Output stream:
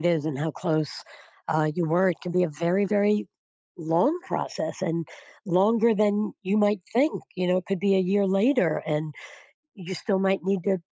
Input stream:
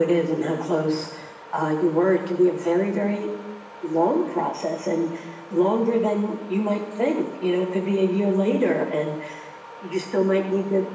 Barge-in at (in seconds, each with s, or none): none